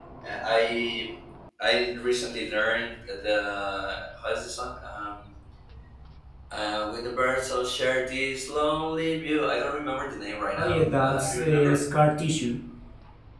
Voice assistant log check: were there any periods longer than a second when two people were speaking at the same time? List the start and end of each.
10.6-11.8

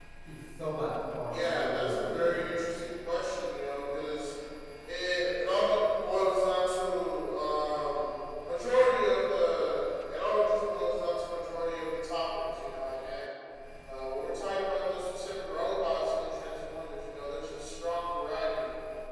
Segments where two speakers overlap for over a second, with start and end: 1.3-2.5

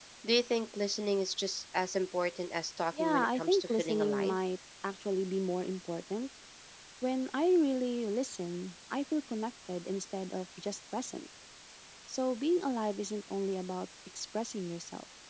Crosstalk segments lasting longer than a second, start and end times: 3.0-4.4

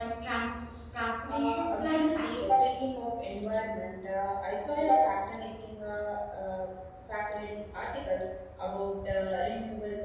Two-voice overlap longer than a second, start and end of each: 1.3-2.5

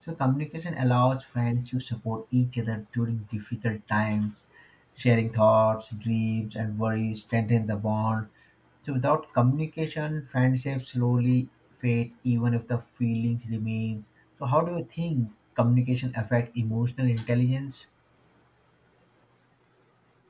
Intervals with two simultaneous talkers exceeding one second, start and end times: none

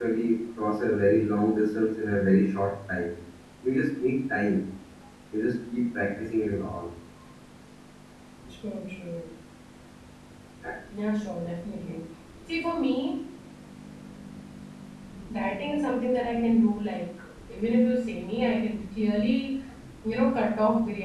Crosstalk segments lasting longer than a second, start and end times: none

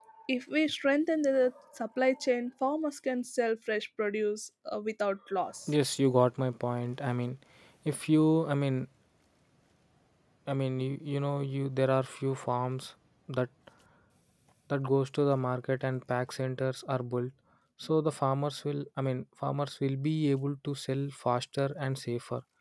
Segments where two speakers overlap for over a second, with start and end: none

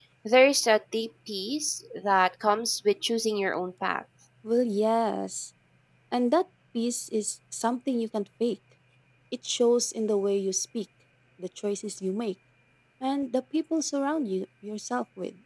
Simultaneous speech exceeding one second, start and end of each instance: none

